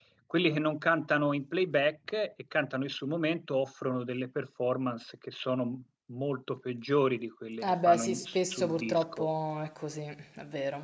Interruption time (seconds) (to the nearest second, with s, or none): 8 s